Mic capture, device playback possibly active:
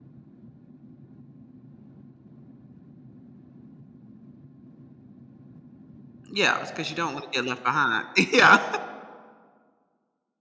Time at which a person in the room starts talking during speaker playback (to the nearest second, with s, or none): 6 s